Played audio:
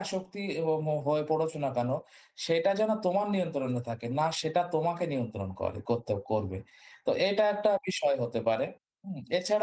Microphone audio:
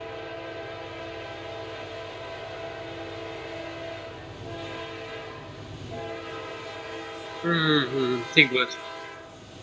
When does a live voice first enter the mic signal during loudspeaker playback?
7.4 s

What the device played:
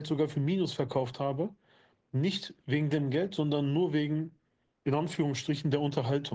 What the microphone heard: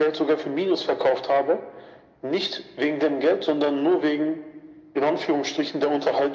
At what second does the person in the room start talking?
none

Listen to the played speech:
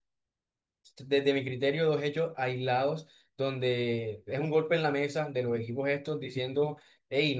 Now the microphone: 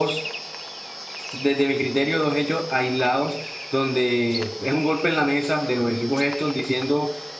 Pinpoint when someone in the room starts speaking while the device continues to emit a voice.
none

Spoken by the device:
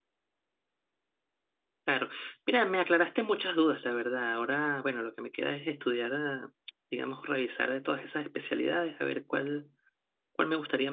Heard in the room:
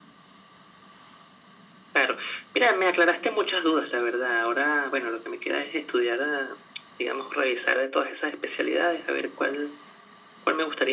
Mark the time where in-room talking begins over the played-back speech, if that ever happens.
none

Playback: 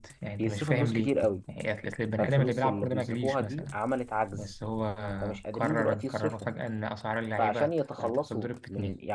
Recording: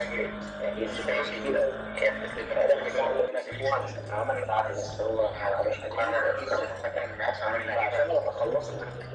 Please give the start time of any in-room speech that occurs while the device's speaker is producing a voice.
none

